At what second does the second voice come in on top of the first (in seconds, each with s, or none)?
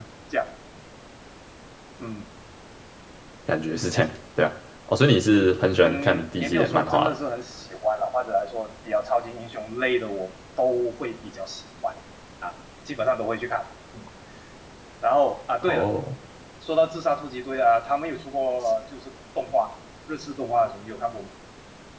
5.8 s